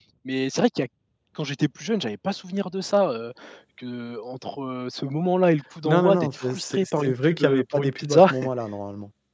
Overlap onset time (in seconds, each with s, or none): 5.8 s